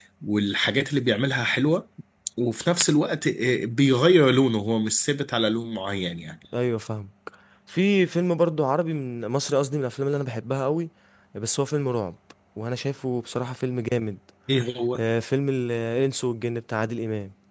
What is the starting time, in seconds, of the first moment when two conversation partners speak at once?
none

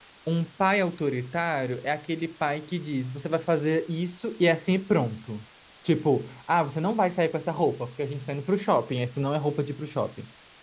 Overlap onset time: none

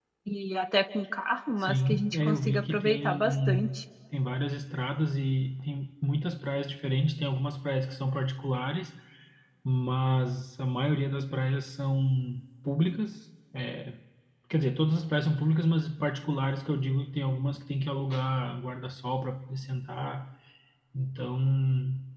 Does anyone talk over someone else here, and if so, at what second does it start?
1.6 s

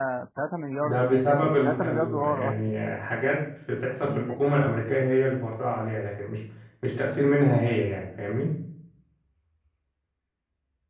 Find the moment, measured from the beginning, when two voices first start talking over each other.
0.8 s

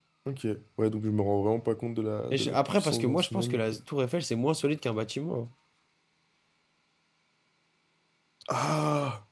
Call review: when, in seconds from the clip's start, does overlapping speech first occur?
2.3 s

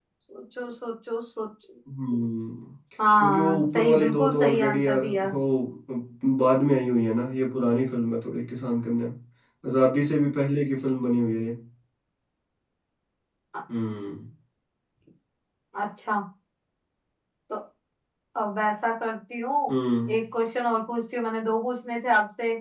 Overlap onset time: 3.2 s

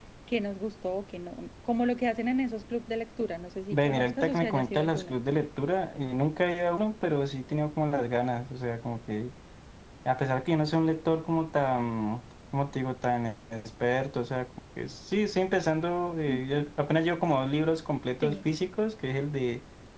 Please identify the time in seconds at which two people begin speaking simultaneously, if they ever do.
3.8 s

